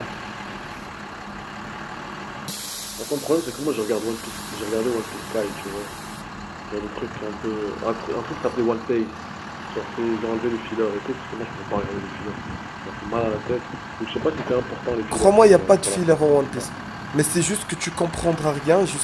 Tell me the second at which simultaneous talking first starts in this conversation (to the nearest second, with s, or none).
15 s